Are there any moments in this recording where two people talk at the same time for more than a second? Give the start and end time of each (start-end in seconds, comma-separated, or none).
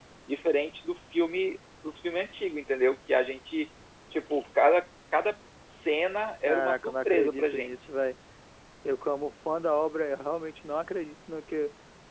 6.5-7.7